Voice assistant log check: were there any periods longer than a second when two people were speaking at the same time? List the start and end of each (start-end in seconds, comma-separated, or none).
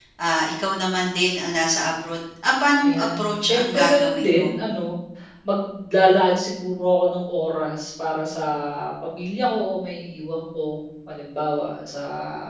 2.8-4.5